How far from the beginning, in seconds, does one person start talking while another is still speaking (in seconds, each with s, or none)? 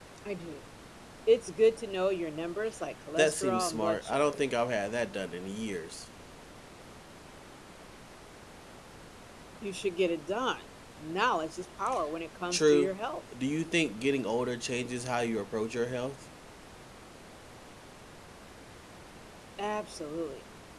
3.2 s